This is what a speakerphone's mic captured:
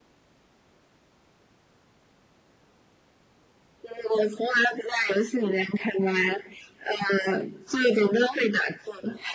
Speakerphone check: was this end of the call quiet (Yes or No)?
Yes